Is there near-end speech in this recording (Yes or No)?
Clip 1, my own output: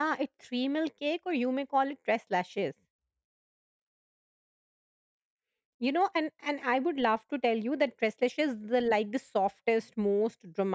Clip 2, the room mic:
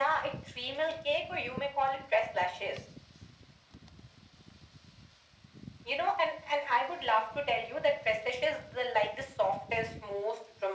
No